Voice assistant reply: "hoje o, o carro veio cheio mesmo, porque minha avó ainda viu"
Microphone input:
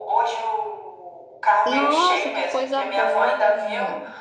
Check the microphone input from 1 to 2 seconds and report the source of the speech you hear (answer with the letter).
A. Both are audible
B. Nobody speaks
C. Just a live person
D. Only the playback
A